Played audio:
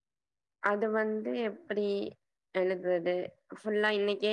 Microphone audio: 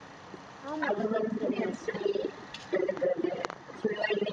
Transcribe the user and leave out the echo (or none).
ஆமா இன்னைக்கி சீட்டு கெடைச்சிச்சி